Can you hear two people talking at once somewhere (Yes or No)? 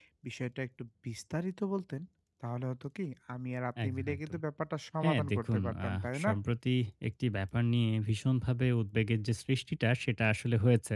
Yes